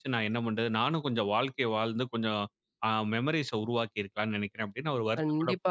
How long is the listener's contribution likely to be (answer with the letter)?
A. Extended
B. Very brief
A